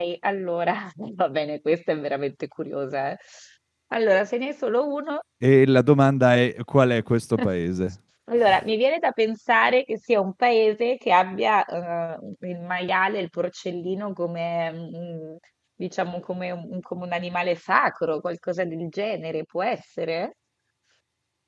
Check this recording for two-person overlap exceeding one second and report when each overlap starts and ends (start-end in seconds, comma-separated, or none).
none